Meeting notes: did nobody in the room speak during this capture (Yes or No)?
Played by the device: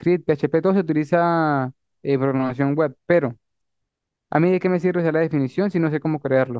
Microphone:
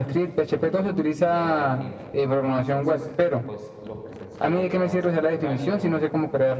No